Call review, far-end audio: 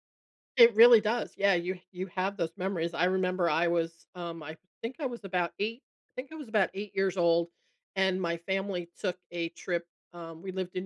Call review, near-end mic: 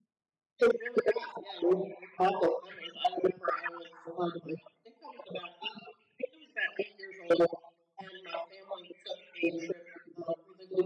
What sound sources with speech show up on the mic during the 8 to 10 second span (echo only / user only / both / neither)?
echo only